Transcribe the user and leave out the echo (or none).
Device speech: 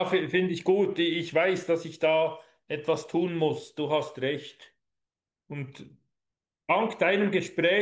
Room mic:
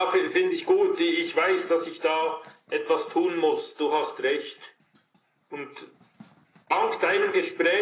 none